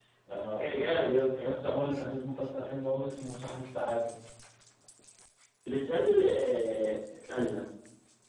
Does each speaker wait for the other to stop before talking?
Yes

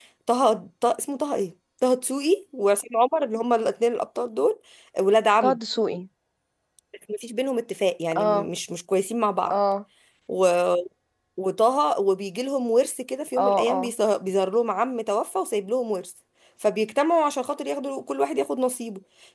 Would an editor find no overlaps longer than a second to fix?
Yes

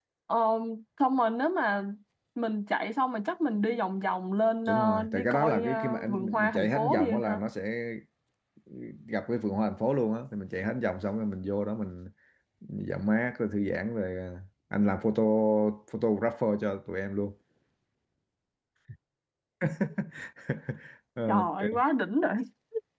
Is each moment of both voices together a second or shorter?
No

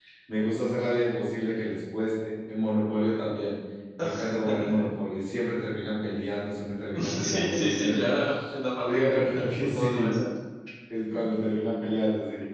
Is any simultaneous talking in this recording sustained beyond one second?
Yes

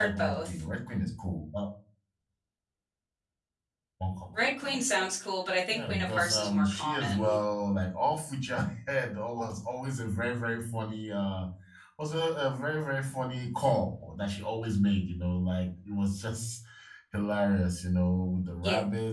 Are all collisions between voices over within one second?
No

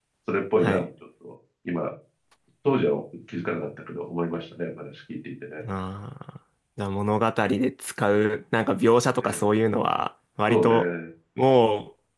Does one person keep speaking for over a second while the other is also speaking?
No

